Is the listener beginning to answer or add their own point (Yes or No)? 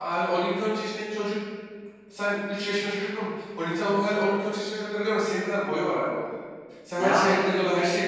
No